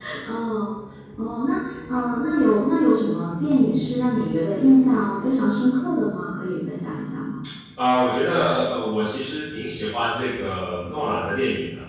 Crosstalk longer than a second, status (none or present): none